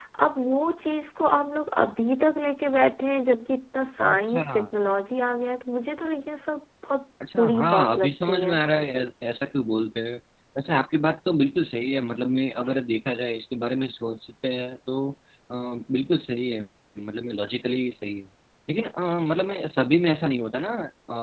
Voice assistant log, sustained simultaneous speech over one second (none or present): present